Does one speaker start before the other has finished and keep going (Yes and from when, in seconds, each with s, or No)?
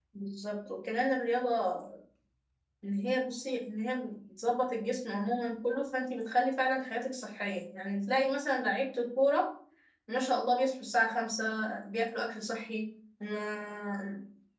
No